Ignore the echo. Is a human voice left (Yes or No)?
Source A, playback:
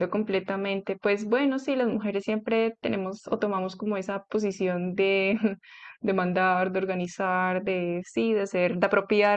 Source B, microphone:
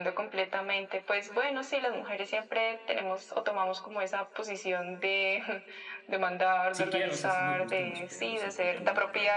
Yes